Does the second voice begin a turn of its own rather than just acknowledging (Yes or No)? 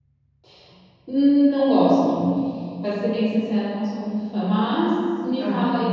Yes